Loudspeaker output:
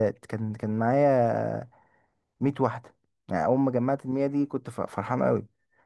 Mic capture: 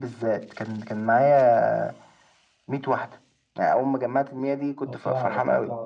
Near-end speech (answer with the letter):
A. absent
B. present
B